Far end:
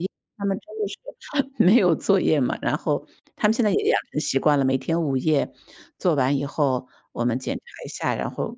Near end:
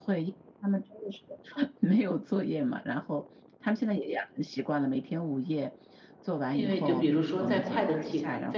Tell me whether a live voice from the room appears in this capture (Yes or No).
Yes